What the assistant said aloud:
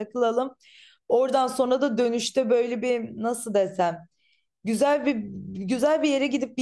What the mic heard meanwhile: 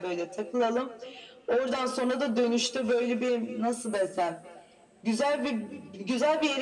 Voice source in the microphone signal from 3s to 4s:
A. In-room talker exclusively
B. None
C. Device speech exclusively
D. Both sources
C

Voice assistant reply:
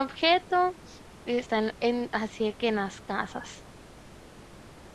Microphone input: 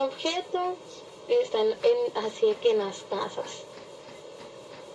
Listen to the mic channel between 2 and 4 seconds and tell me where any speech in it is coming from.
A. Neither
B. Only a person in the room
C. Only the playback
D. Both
C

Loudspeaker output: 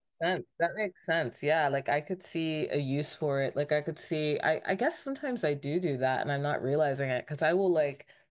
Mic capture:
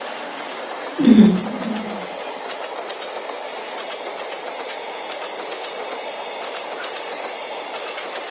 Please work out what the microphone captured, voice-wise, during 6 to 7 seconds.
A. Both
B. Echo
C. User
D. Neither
D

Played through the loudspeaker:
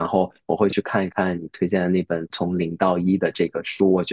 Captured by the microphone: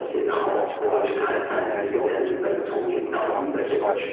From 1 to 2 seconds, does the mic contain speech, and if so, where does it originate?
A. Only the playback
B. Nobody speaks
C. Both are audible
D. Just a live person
C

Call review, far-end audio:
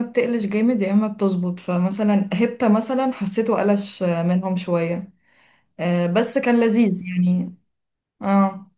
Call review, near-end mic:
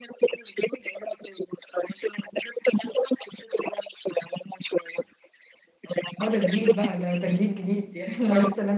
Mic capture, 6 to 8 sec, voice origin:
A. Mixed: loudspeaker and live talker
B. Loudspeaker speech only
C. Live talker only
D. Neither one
A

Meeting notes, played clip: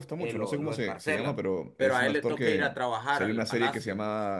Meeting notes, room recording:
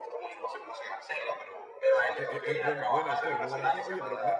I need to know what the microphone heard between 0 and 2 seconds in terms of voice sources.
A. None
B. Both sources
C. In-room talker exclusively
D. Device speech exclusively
D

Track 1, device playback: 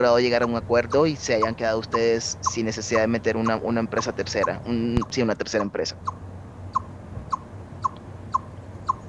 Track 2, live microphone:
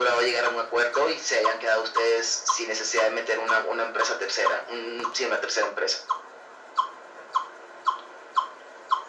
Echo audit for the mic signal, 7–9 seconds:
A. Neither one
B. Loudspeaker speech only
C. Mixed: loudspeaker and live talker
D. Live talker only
A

